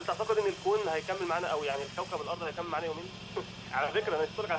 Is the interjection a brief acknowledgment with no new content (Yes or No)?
Yes